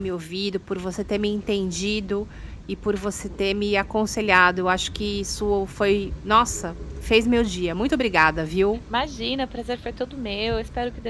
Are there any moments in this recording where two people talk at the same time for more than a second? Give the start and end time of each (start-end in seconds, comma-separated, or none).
none